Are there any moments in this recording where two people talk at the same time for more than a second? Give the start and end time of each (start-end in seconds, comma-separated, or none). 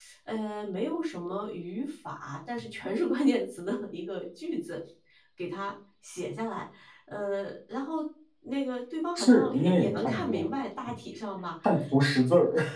9.2-10.4